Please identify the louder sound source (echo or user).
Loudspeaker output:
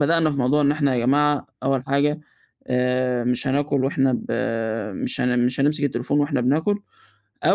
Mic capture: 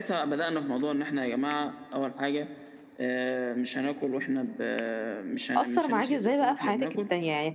user